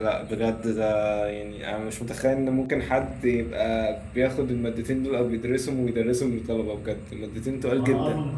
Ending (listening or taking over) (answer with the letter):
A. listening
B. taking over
B